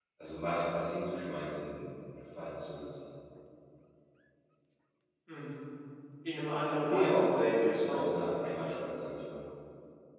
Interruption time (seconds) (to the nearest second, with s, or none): 7 s